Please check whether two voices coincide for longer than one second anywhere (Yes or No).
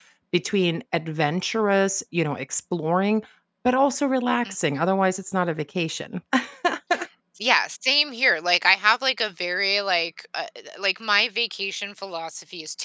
No